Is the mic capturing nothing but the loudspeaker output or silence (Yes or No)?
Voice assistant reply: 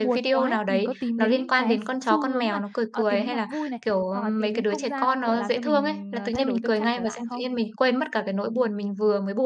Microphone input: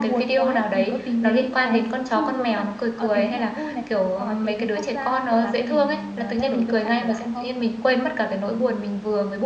Yes